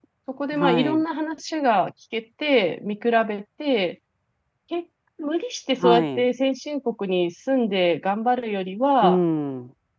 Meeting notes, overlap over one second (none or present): none